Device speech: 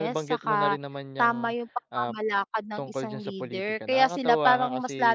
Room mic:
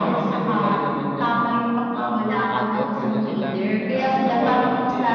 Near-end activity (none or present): present